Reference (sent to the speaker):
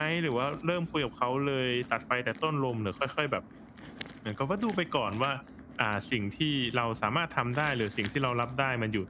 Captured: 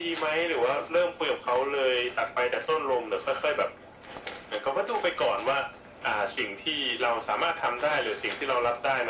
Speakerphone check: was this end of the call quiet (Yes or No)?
Yes